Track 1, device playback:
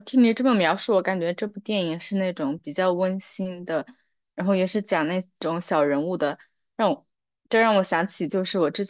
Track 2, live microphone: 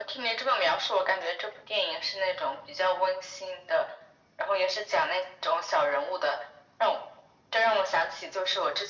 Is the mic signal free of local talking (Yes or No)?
Yes